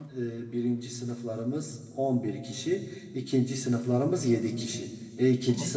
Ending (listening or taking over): listening